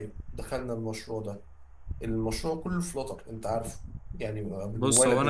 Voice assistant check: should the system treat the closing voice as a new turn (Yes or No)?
Yes